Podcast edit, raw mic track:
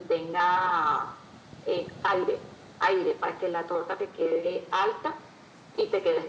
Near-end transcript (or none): none